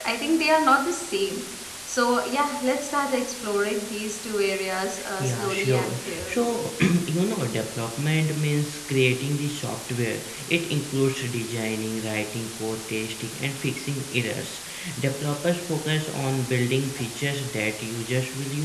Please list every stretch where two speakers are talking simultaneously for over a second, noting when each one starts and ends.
5.2-6.6

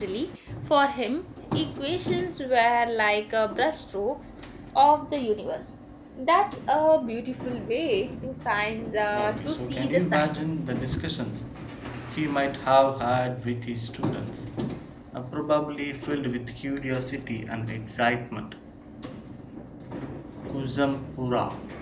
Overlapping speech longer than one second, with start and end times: 9.1-10.3

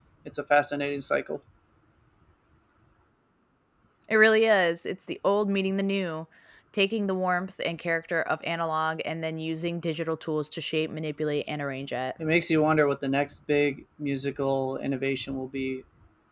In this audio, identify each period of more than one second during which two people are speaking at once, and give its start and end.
none

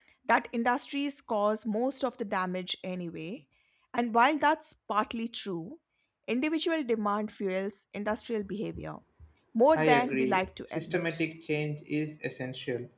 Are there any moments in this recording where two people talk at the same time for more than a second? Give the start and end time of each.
9.7-11.2

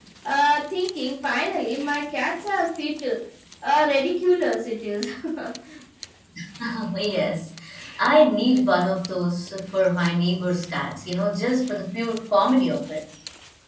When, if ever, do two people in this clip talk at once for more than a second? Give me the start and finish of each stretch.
none

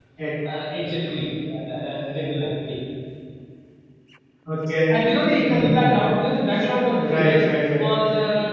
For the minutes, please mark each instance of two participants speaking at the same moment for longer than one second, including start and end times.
none

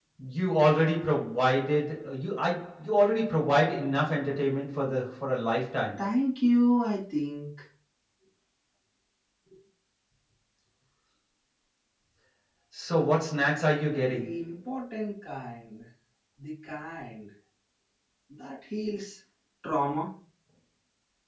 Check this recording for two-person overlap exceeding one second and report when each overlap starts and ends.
none

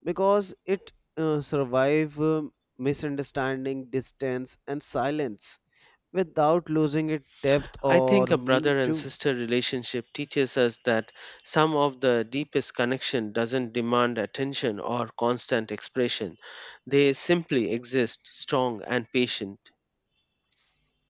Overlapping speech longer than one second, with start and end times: 7.9-9.1

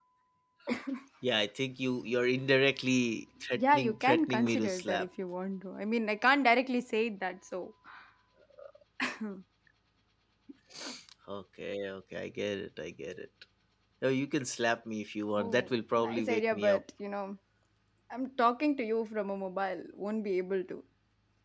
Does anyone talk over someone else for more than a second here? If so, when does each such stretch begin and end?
3.5-5.1, 15.4-16.8

